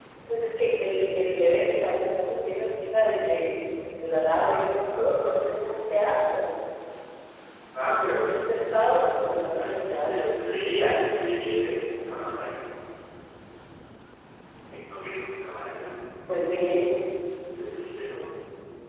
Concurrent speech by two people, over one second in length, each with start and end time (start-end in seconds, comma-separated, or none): 4.2-5.6, 8.2-10.4